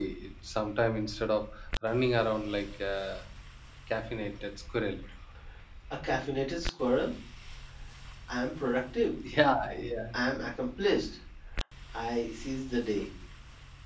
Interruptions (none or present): none